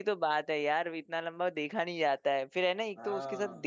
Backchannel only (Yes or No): Yes